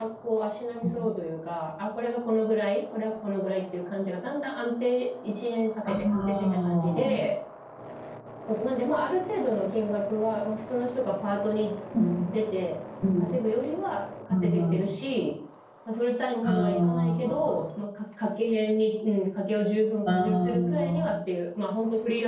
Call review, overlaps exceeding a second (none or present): present